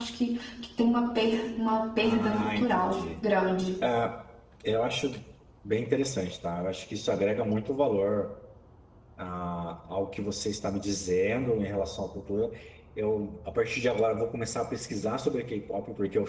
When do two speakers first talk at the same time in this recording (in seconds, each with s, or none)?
2.0 s